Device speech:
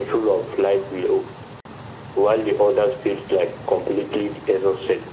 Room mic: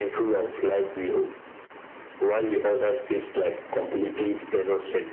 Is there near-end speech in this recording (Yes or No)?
No